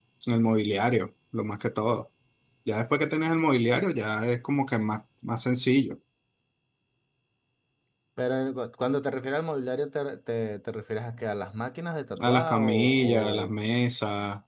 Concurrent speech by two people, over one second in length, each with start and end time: 12.2-13.5

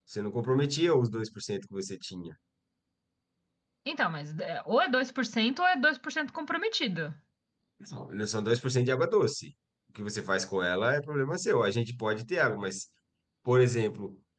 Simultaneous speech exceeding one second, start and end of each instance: none

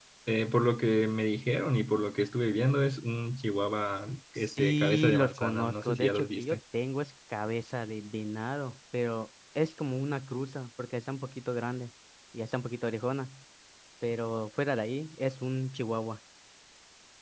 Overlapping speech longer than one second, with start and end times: 4.3-6.6

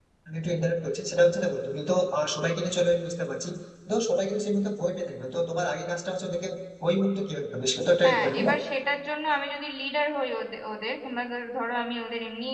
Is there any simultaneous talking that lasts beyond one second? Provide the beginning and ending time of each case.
none

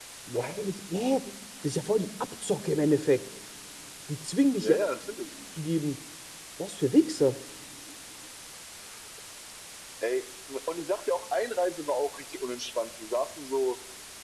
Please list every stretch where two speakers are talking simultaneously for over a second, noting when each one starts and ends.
none

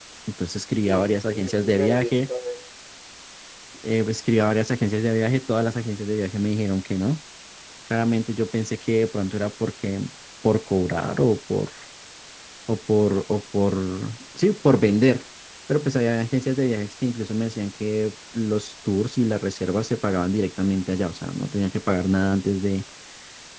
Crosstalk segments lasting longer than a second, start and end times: 0.7-2.2

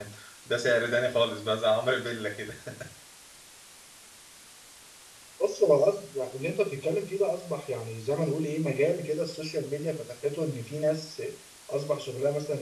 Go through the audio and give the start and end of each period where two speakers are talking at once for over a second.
none

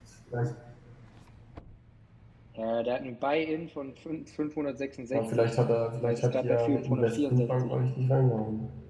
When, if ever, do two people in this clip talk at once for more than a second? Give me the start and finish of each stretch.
6.0-7.7

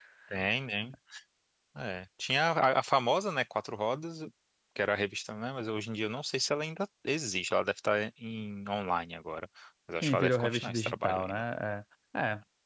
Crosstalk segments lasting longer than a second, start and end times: 10.0-11.4

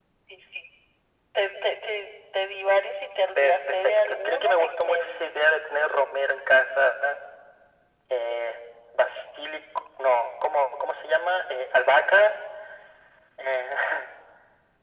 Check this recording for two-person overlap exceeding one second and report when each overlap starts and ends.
3.4-5.4

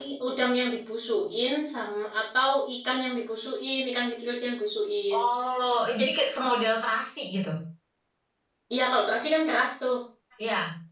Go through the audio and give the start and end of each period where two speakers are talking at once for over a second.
none

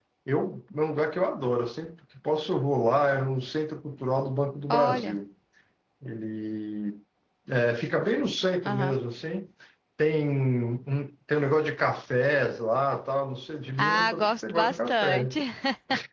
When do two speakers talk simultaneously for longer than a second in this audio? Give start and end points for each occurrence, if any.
13.8-15.4

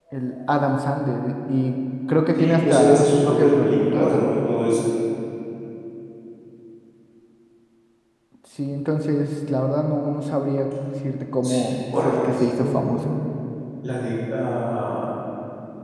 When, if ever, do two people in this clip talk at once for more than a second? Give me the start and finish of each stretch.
2.4-4.2, 11.4-13.2

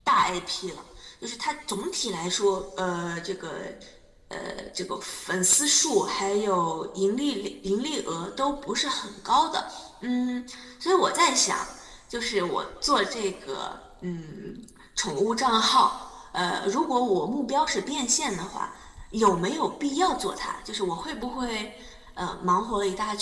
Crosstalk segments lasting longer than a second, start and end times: none

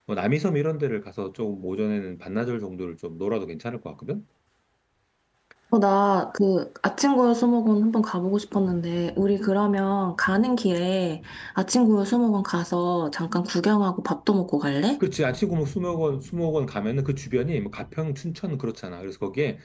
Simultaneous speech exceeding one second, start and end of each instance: none

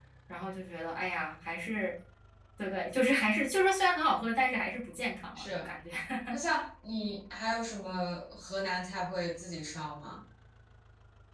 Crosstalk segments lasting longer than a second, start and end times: none

